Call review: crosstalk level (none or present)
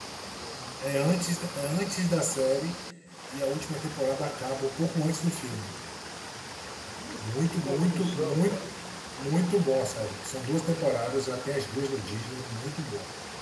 present